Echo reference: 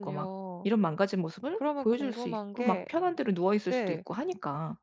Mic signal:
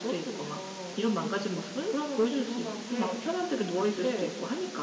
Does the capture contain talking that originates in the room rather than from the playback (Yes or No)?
No